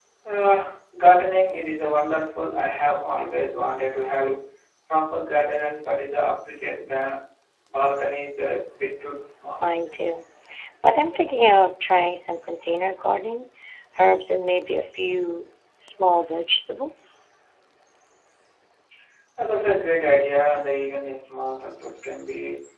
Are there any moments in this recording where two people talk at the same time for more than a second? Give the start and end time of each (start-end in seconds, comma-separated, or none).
none